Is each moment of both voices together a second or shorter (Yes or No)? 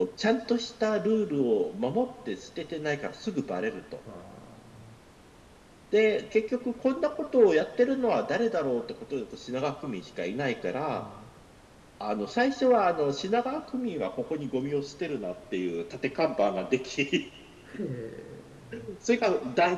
Yes